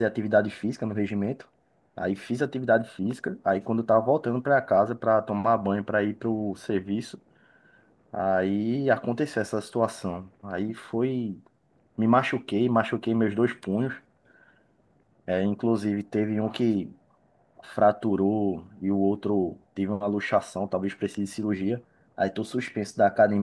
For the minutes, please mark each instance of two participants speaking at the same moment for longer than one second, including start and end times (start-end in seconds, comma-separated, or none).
none